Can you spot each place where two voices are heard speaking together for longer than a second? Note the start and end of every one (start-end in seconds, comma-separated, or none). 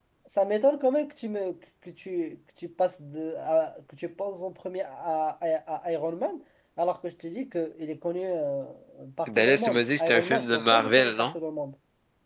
9.3-11.3